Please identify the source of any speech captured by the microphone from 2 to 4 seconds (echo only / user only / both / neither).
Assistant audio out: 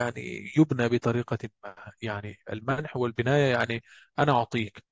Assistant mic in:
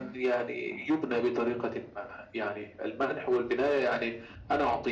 echo only